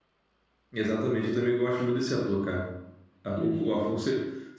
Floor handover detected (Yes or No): No